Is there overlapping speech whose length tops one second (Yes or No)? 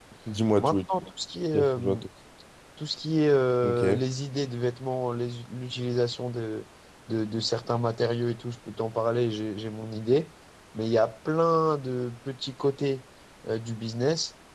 No